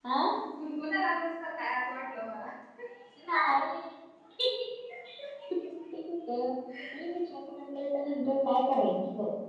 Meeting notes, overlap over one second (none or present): none